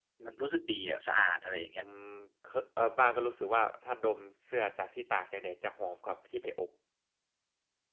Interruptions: none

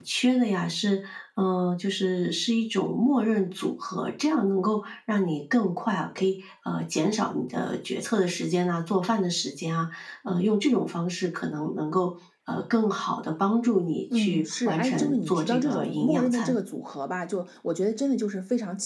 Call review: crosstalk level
present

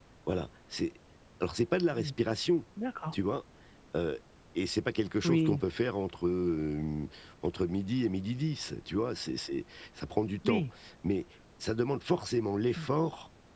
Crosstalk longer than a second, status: none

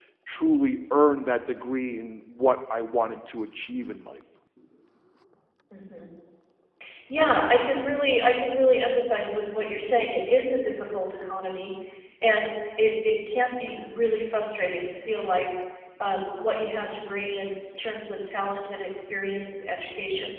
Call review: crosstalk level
none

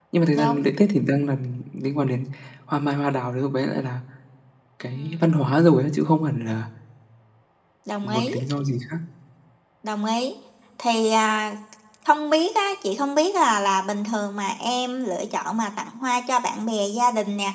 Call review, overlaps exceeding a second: none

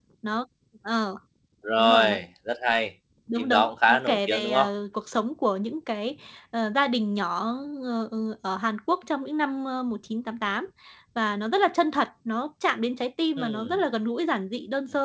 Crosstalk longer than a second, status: present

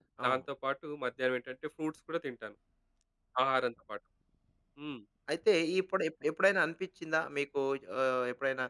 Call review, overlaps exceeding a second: none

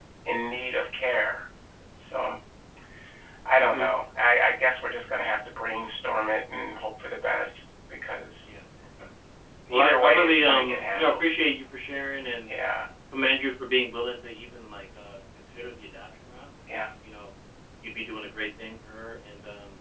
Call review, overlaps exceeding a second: present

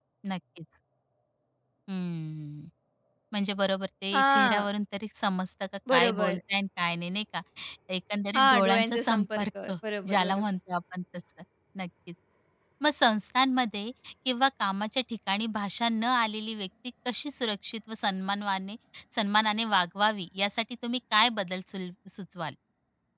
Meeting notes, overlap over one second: present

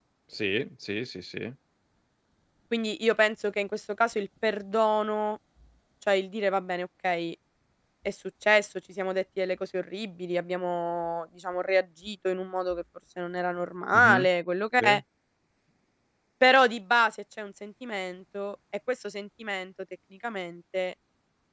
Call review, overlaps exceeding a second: none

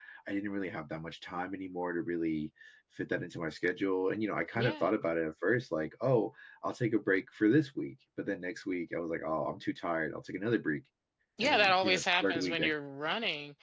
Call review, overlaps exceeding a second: present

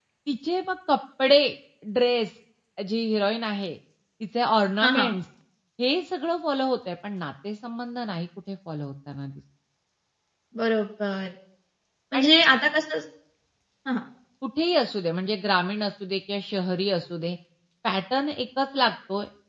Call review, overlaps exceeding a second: none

